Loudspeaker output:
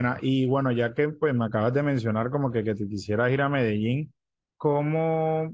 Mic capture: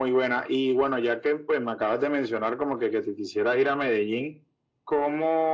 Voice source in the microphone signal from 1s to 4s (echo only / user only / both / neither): echo only